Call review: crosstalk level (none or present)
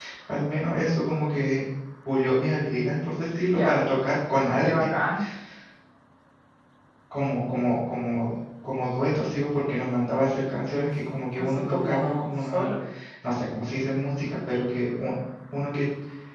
present